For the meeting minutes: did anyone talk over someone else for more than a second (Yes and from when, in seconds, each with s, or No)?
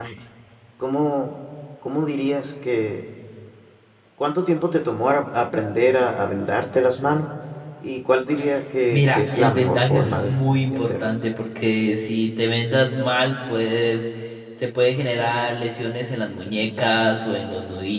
Yes, from 8.9 s